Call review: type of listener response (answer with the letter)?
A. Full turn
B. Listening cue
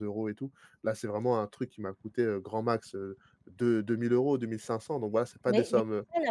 A